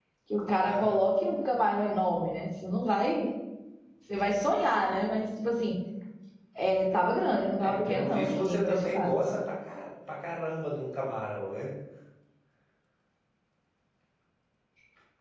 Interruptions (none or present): present